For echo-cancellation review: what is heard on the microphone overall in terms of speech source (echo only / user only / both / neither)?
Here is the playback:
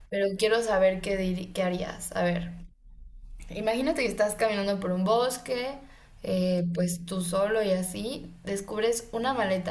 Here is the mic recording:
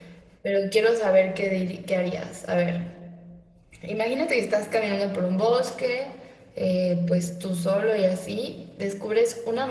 echo only